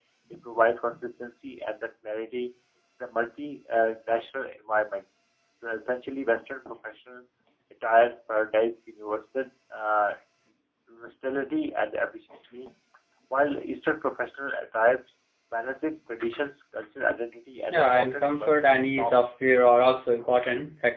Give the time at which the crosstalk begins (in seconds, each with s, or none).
17.7 s